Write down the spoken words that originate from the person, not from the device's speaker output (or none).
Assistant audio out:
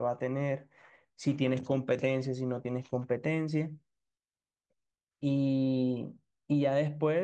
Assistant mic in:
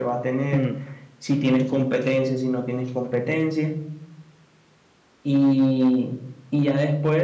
Mm.